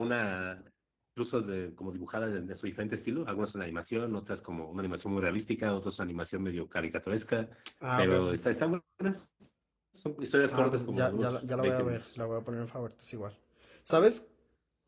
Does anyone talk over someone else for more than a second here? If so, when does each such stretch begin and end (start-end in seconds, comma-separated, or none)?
10.5-12.2